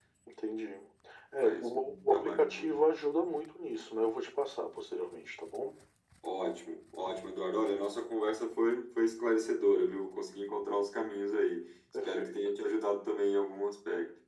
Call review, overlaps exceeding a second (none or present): present